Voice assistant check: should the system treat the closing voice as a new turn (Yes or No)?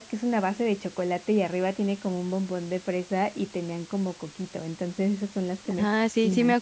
Yes